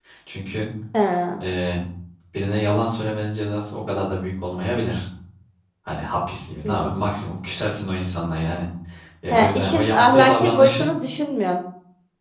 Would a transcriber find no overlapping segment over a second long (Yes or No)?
No